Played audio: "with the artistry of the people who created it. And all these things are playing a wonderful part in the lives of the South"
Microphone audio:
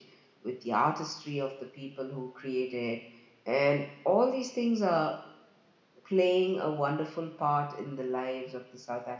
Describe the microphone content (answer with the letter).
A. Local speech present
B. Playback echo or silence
B